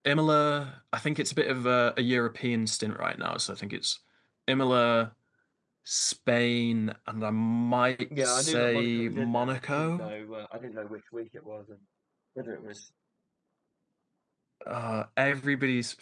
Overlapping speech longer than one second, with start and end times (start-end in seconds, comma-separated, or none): 8.2-10.1